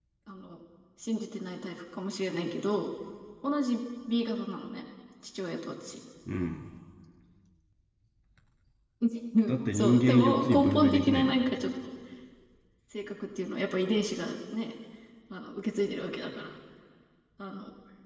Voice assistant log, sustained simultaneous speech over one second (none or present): present